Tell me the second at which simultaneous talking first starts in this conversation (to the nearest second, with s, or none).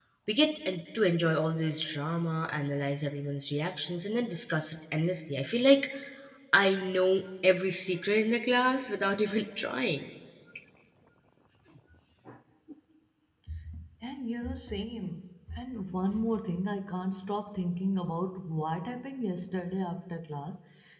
none